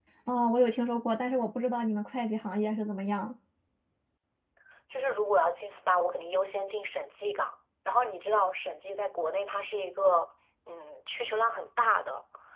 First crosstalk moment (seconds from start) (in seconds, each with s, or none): none